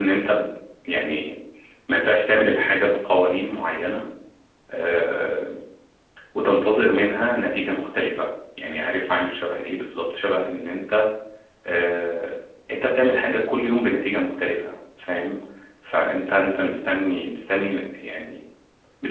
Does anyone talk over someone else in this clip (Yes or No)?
No